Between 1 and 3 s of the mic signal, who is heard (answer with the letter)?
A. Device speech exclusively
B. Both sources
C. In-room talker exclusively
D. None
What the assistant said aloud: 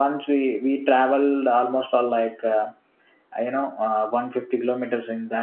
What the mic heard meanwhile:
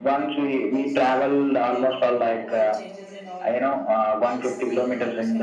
B